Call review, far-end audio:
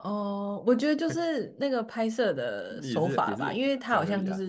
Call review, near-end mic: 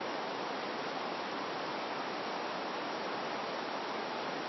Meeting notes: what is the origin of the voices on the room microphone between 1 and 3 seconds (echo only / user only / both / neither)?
neither